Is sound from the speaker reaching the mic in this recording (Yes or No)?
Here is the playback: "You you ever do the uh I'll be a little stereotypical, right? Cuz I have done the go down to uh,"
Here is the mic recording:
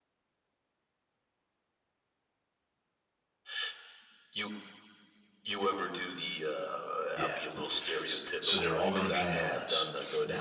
Yes